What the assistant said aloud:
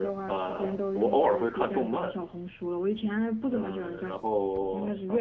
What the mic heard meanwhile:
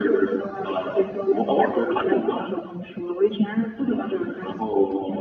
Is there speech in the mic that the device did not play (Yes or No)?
No